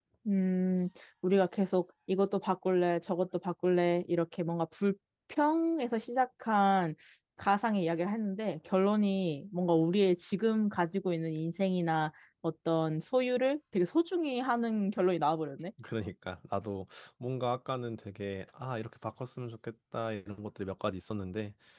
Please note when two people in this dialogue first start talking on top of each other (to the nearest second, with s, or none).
none